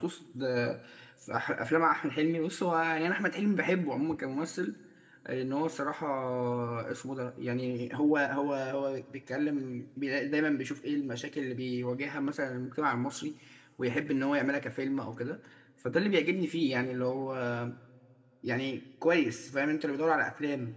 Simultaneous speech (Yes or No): No